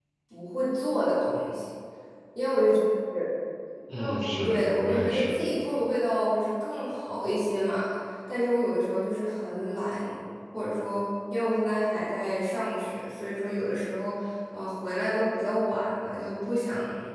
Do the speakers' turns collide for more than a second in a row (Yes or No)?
Yes